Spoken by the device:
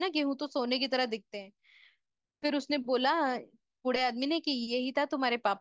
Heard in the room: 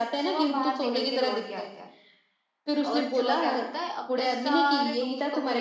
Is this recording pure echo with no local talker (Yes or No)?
No